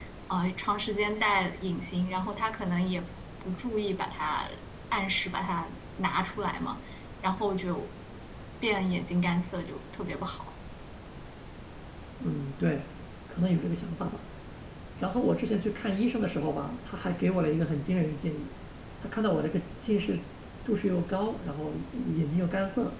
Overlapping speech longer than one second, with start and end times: none

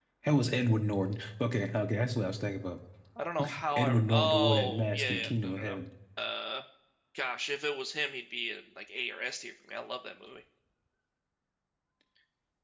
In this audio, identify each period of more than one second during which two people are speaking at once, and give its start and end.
3.8-5.8

